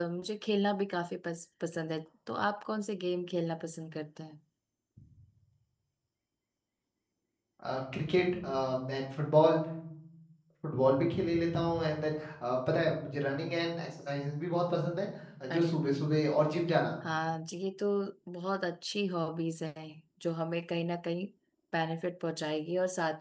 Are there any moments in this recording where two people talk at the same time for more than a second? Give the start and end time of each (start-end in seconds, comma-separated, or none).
none